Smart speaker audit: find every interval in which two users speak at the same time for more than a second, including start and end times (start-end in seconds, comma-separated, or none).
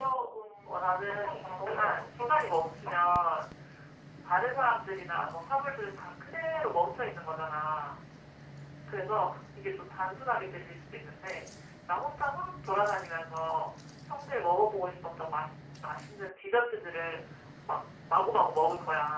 0.7-3.0